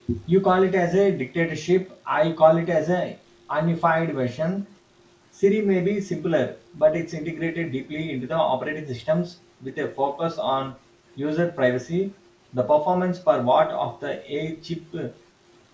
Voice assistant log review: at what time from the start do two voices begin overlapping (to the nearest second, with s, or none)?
none